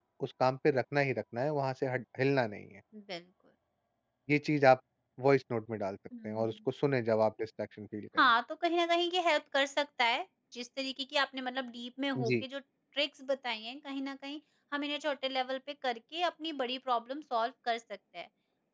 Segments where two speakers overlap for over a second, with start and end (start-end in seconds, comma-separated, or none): none